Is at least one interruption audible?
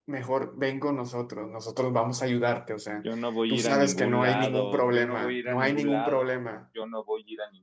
Yes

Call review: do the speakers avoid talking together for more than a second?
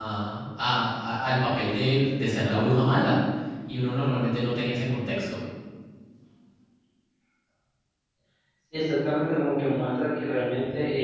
Yes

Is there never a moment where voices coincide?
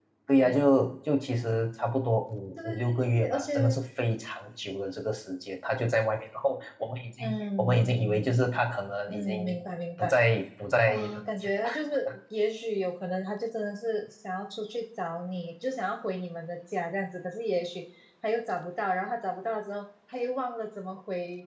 No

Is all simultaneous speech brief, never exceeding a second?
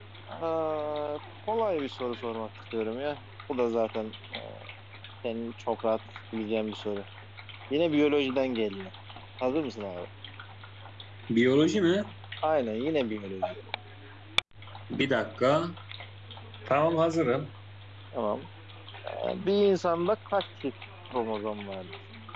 Yes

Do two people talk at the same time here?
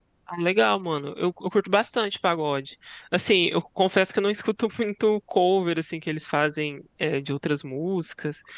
No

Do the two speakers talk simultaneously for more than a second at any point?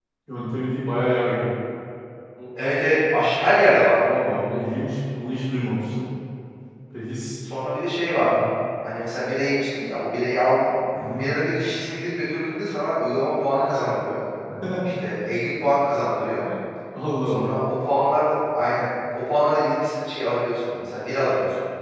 No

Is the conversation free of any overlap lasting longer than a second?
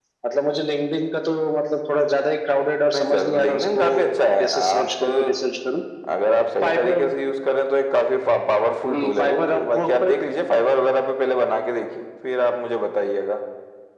No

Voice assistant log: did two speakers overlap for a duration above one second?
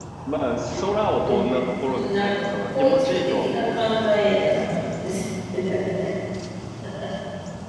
Yes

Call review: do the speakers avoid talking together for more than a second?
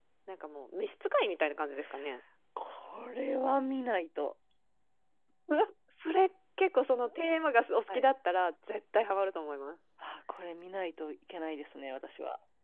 Yes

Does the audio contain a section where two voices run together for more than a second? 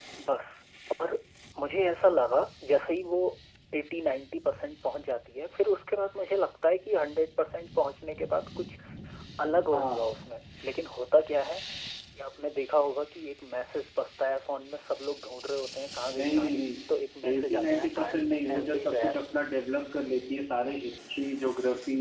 Yes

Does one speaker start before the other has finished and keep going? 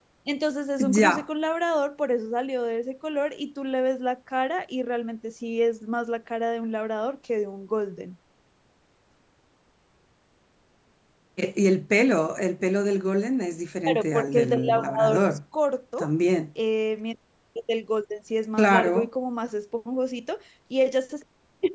Yes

